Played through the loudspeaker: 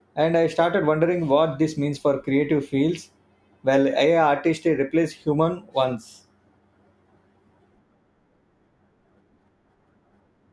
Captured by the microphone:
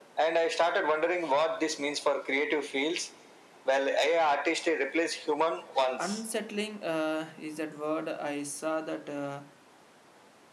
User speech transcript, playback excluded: Unsettling uh, is that word. I saw that uh,

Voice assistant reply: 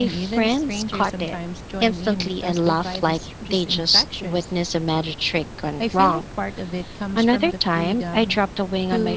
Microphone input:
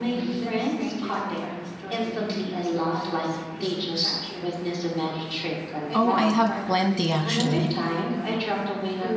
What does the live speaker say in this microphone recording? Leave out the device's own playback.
Oh, I have plenty actually.

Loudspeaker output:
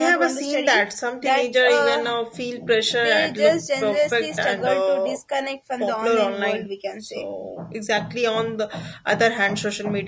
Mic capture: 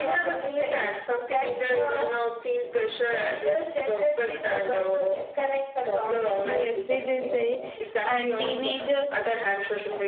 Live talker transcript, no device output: yes it is very and teenagers

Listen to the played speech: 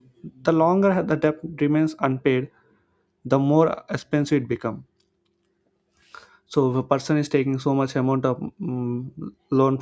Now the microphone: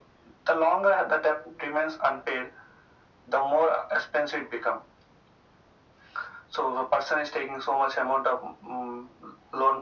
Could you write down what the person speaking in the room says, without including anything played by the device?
none

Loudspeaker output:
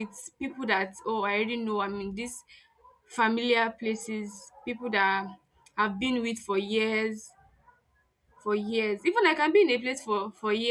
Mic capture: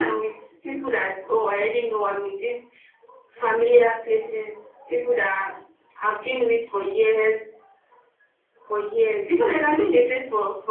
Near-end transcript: none

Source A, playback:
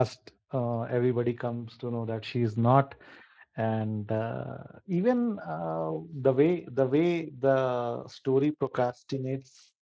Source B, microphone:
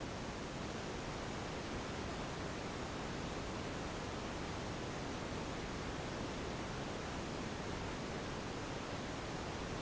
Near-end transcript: none

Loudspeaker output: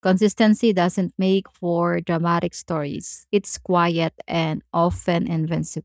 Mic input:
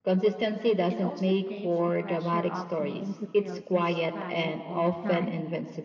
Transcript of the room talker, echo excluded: It also takes the pressure off needing to feel inspired all the time.

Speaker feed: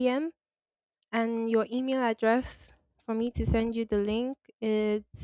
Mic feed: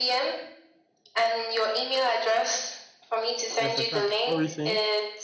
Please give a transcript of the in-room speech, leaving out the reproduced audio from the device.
Yes, I can. What were you saying?

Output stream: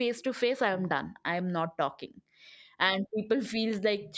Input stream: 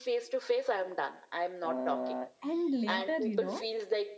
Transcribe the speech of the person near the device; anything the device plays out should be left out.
uh, and later you know

